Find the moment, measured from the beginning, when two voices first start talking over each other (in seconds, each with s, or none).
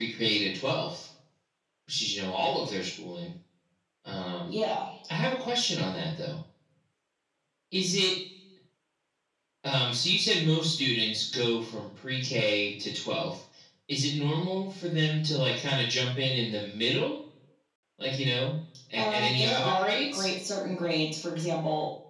19.0 s